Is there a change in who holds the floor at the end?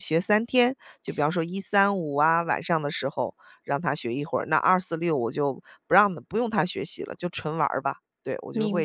Yes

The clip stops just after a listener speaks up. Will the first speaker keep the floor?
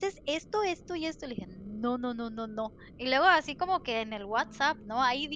Yes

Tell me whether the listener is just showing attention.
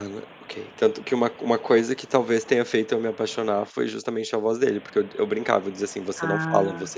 Yes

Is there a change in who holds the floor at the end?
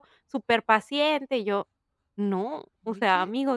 No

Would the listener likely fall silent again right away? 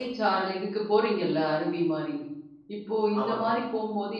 Yes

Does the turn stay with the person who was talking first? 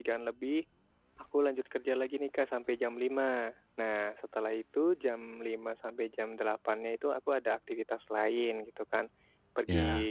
Yes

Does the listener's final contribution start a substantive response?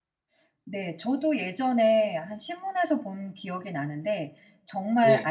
No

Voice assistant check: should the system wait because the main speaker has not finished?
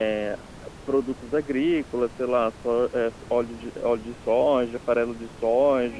No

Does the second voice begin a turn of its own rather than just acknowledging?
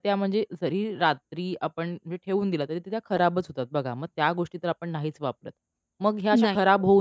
No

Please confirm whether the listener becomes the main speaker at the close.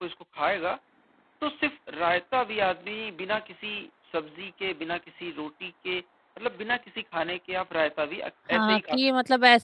Yes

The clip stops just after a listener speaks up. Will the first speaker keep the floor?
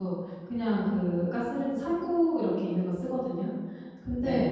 Yes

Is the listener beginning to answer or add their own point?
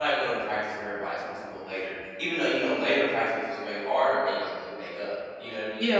Yes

